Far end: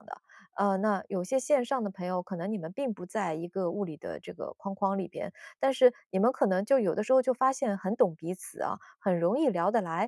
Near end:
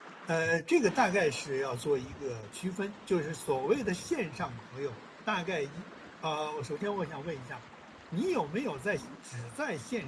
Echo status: none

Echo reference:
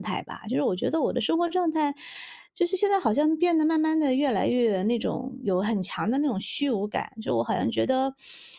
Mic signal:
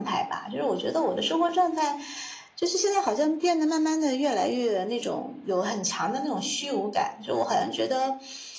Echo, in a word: present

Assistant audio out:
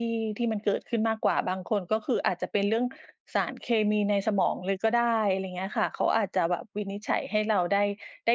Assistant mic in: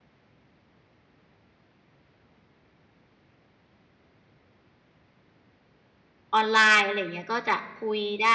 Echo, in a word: none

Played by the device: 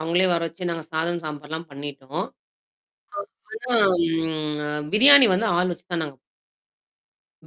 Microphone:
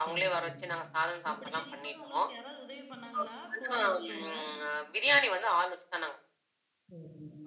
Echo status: present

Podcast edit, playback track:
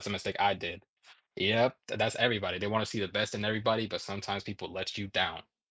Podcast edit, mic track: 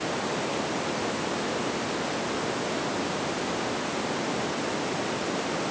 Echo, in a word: none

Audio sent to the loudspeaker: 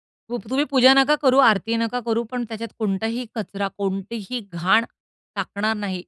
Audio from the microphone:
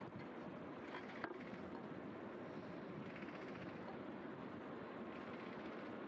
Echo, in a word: none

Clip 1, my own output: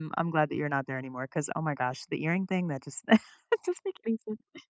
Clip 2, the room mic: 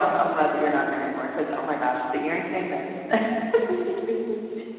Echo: present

